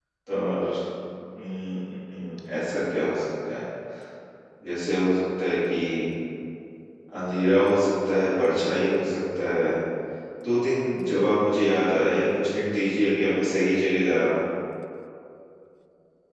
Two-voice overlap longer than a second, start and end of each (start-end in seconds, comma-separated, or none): none